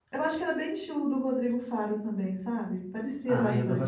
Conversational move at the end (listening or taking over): taking over